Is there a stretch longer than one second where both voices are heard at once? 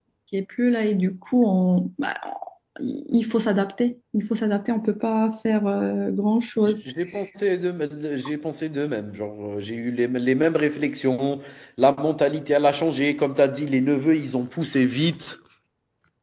No

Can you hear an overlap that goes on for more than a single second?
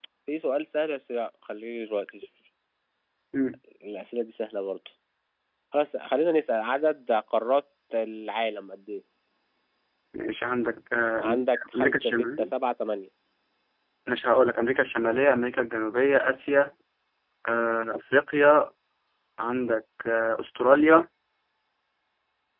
Yes, from 11.2 s

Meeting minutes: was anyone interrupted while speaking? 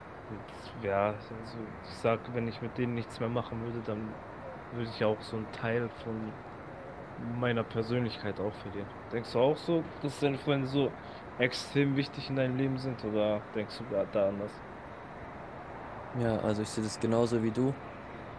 No

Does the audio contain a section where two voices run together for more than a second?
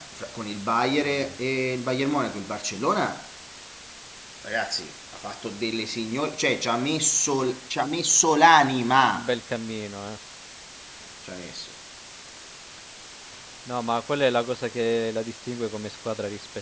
No

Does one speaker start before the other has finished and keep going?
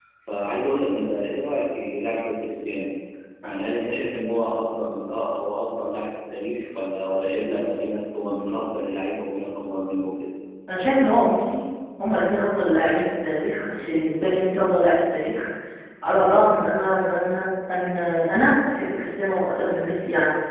No

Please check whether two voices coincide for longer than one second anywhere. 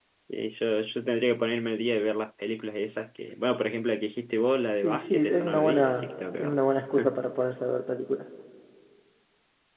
Yes, from 4.8 s

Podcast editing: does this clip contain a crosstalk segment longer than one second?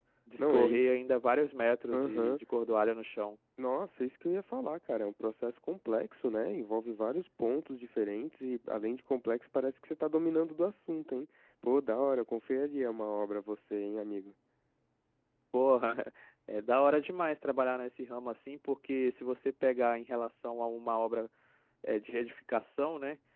No

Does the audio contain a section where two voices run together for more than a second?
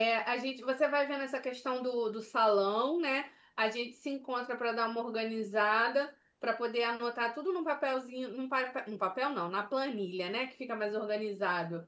No

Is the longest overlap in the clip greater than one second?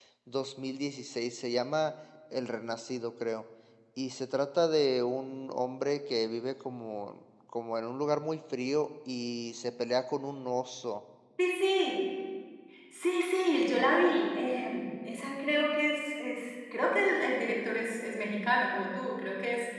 No

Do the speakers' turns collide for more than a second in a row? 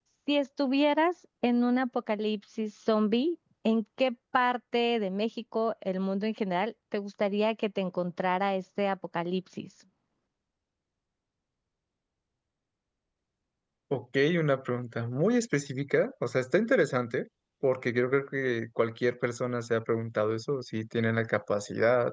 No

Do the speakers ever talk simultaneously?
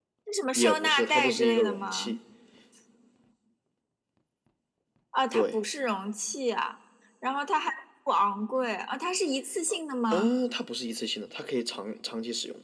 Yes, from 0.6 s

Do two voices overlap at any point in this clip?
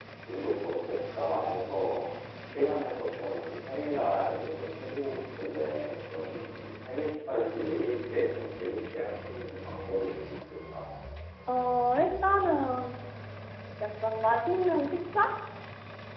No

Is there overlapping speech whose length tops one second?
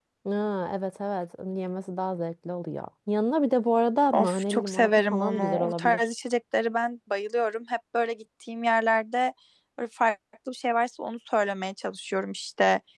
Yes, from 4.1 s

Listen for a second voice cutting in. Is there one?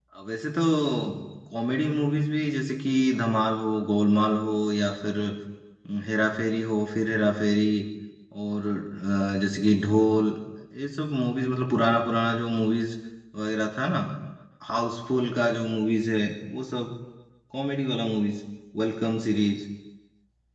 No

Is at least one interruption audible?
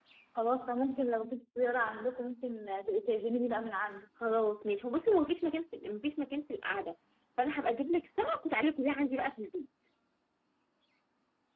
No

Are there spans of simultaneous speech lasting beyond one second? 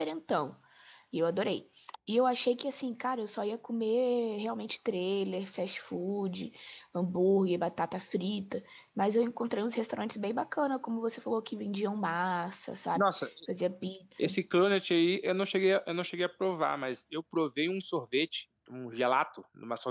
No

